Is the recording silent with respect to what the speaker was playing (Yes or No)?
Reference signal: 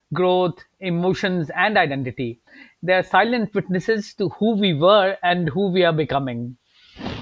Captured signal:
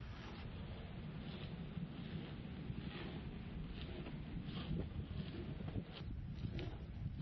Yes